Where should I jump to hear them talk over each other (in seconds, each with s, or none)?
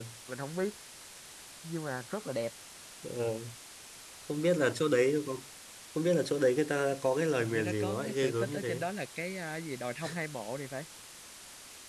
7.4 s